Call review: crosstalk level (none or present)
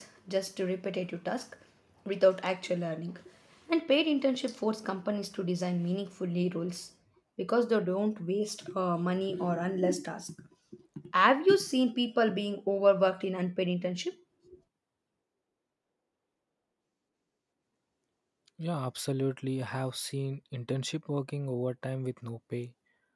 none